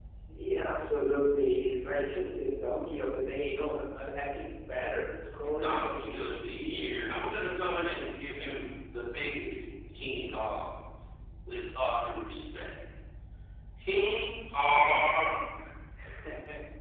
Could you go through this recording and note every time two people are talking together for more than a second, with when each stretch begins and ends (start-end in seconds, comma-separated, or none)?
5.6-6.9